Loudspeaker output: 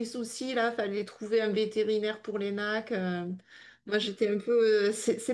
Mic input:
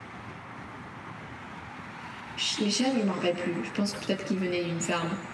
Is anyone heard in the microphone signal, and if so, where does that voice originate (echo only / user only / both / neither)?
user only